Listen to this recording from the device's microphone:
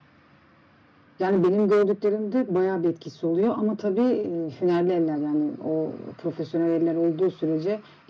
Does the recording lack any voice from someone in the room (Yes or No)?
No